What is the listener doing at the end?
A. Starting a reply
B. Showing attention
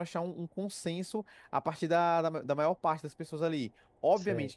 B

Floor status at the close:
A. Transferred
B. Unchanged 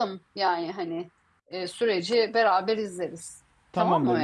A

